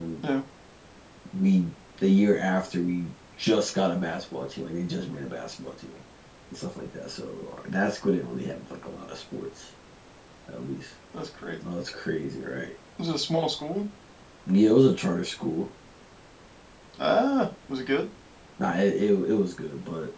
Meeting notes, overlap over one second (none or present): none